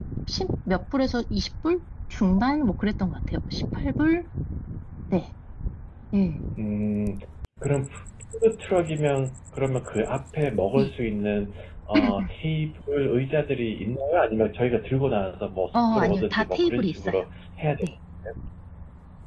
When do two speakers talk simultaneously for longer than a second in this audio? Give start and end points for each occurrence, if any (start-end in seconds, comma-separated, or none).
15.7-17.1